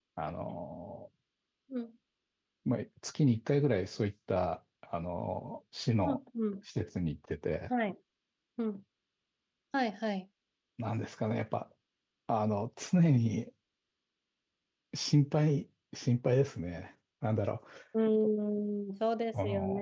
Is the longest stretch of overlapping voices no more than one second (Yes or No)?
Yes